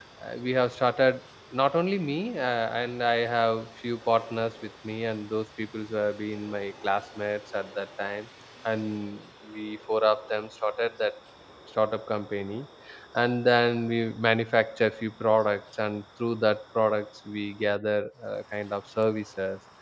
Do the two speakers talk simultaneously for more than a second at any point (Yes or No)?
No